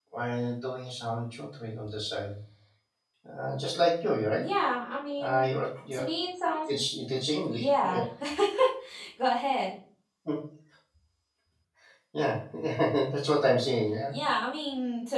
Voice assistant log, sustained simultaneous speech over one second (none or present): none